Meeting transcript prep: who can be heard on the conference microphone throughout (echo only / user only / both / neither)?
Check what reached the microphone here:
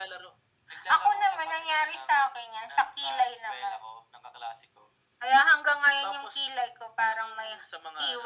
echo only